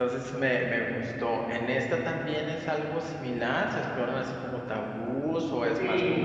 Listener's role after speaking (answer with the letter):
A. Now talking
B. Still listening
A